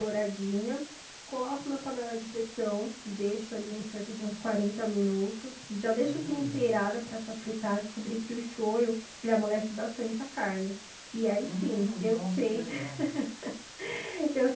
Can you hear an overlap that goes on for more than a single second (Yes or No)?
Yes